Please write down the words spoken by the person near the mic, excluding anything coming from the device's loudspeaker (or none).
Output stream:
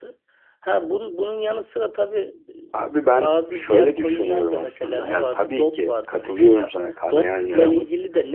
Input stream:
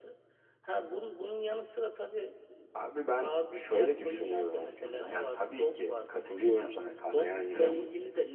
none